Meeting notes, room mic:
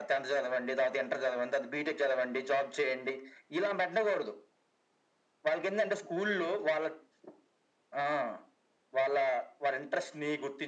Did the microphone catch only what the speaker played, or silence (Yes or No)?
Yes